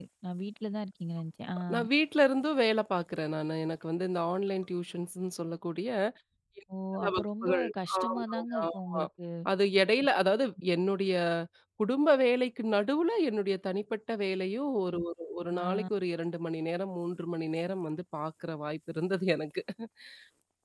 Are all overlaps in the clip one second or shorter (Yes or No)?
No